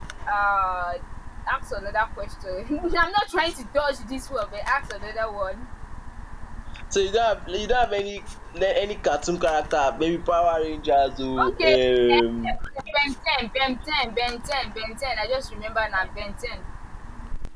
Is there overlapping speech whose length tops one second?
No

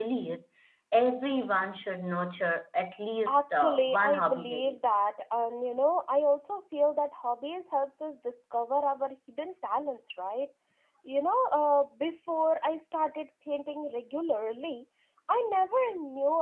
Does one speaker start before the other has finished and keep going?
Yes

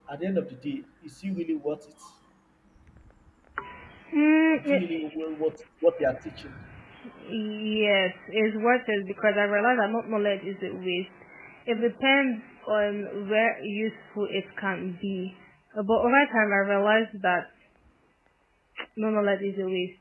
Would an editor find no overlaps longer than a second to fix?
Yes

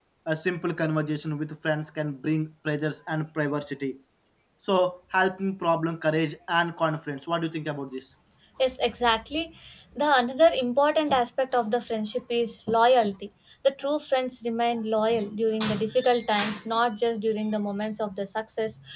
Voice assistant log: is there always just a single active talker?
Yes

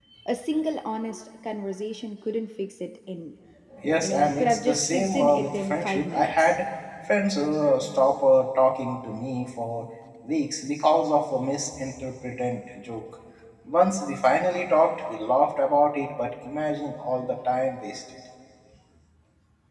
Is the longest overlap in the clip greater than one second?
Yes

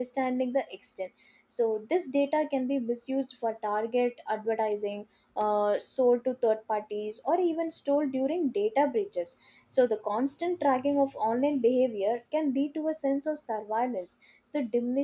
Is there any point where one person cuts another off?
No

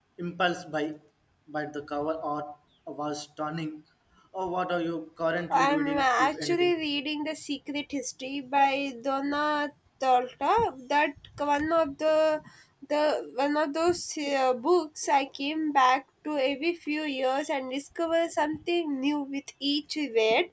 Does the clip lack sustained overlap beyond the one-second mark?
No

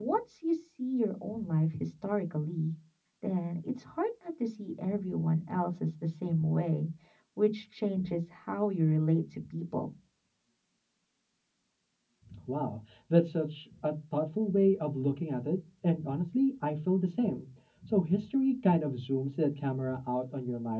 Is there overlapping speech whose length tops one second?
No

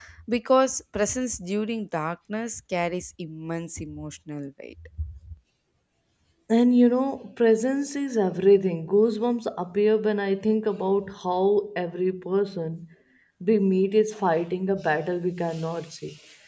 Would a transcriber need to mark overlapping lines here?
No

